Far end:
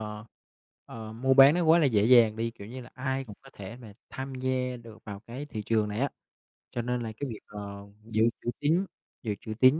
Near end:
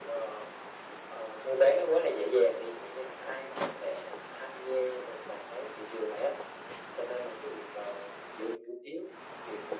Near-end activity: none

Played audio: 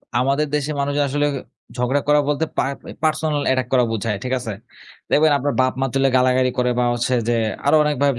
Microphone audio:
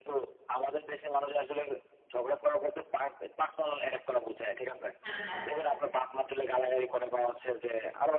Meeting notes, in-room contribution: present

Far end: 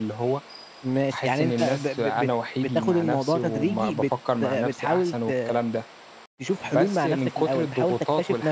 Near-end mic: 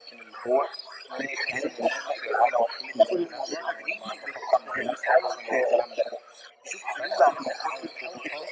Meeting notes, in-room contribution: none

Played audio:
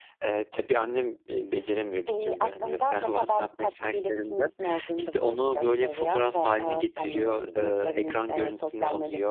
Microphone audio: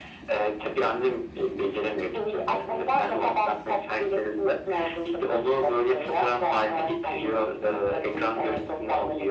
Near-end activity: none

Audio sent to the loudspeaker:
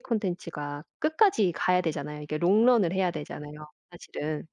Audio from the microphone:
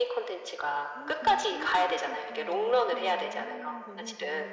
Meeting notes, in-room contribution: present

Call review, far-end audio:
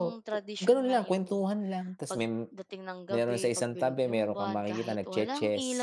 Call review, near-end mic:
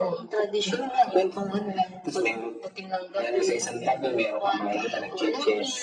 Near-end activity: none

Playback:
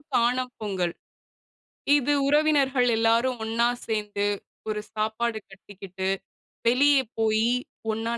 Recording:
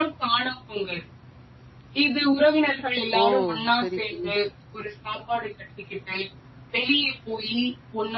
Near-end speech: present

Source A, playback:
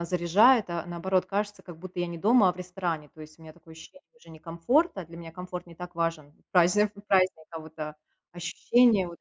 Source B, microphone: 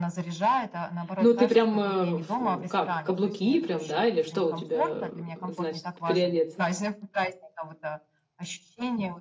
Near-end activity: present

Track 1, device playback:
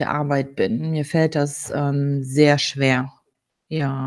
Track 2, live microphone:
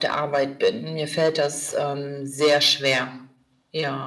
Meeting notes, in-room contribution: none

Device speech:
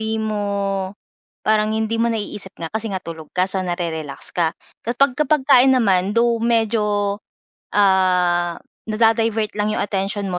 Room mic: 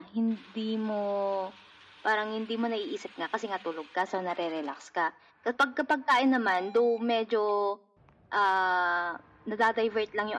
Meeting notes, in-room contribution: none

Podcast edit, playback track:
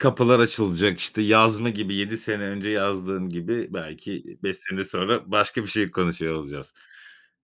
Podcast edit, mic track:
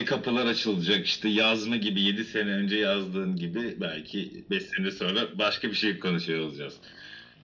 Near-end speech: none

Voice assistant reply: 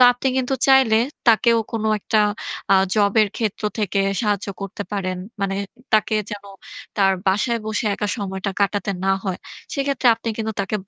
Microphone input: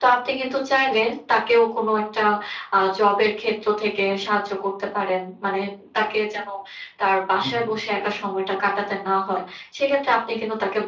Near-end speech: present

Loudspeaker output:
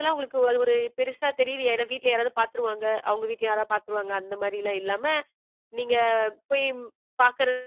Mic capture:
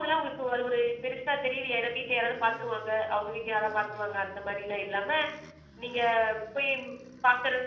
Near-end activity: none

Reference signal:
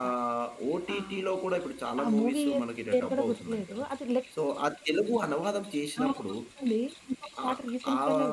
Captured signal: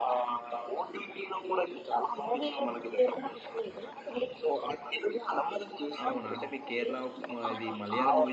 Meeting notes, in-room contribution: present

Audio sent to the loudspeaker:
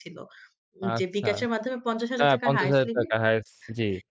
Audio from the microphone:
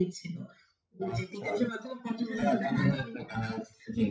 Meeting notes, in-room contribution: present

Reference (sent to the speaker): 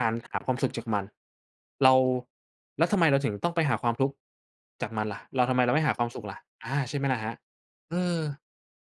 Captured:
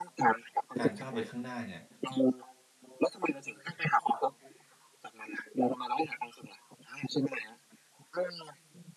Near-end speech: present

